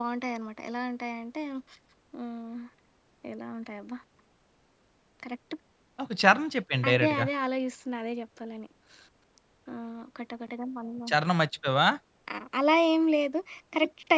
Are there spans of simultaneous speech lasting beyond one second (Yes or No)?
No